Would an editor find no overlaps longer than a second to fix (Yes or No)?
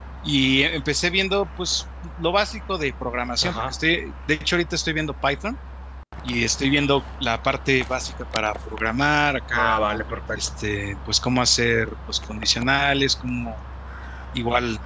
Yes